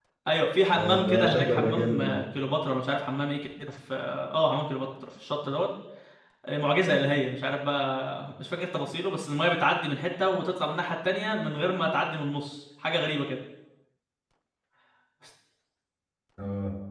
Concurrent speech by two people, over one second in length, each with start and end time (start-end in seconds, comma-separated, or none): 0.7-2.2